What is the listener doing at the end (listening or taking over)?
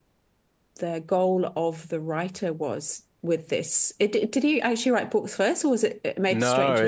taking over